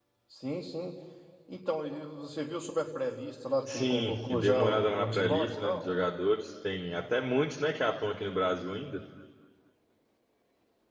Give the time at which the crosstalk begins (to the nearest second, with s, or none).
4 s